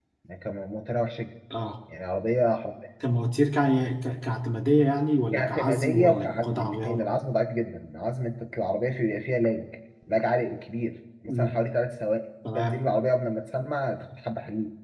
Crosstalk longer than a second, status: present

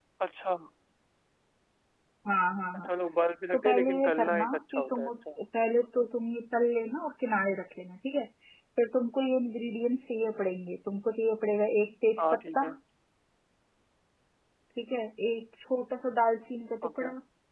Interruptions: present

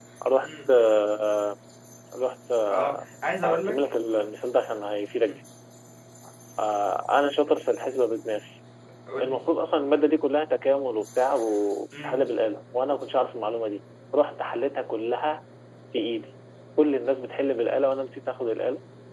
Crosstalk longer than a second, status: none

